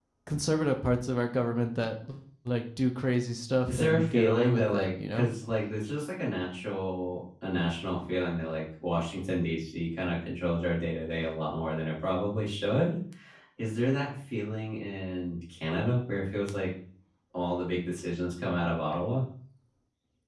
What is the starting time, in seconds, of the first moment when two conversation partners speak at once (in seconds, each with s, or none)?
3.7 s